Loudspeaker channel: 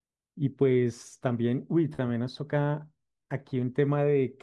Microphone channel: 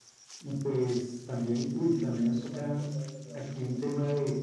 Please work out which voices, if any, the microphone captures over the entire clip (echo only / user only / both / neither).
both